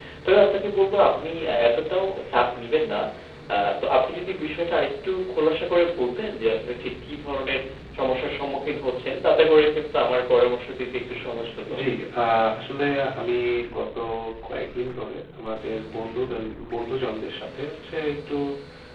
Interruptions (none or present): none